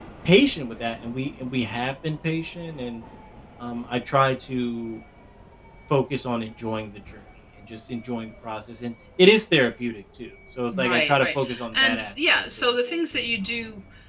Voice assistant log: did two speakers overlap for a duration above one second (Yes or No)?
Yes